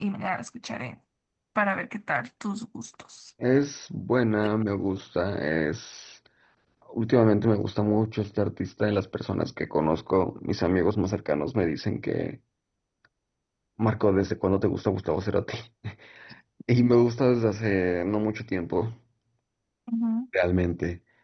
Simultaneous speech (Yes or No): No